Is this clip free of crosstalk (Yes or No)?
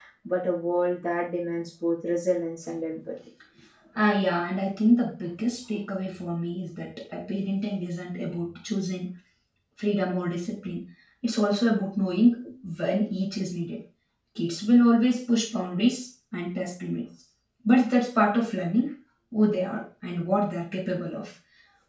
Yes